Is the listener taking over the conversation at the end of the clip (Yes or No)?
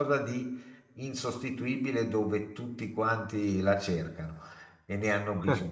No